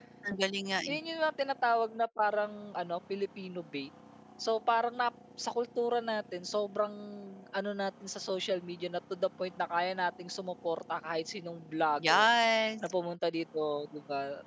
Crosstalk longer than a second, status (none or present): none